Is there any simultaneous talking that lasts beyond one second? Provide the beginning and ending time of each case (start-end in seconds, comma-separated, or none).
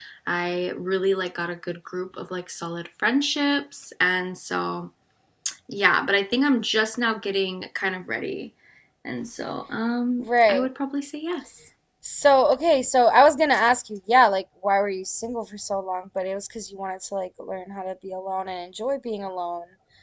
none